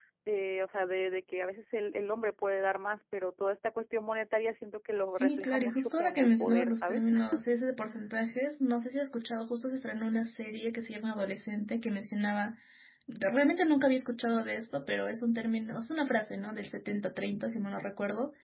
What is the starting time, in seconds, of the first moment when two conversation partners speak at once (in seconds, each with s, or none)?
5.2 s